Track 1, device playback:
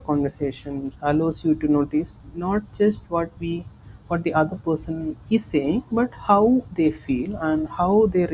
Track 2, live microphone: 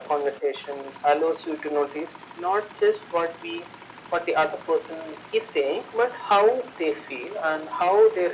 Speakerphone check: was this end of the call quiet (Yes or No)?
Yes